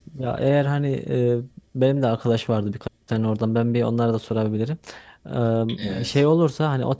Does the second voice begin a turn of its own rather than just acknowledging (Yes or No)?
No